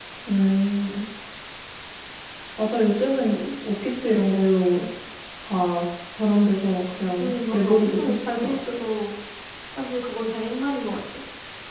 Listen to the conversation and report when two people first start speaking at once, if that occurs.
7.2 s

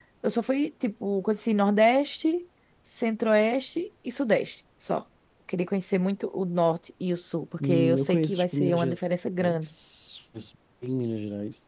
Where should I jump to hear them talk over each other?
7.6 s

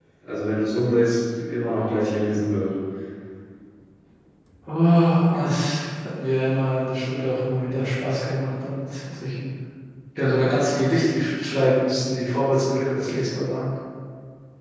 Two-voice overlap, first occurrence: none

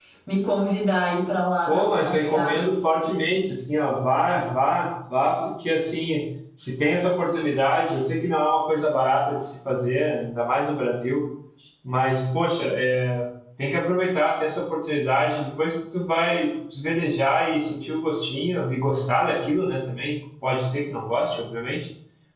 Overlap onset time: 1.7 s

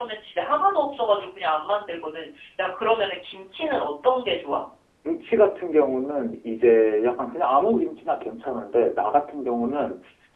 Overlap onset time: none

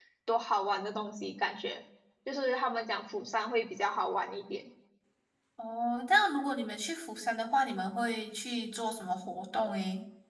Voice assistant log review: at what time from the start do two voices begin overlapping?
none

